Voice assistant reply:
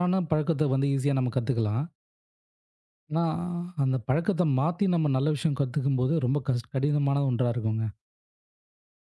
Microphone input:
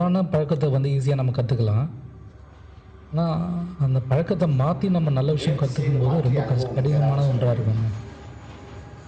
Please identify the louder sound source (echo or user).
echo